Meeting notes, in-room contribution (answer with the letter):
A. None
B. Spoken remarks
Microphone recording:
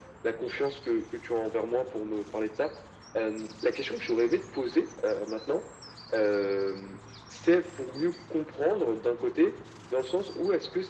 A